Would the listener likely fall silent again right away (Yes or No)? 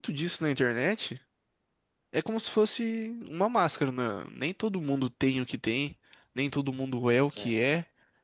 Yes